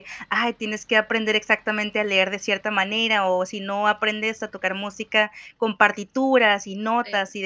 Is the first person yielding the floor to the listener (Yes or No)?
No